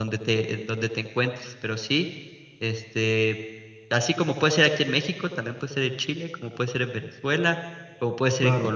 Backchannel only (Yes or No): Yes